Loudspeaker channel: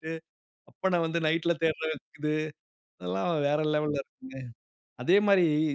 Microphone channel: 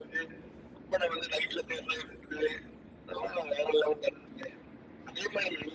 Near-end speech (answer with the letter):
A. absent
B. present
A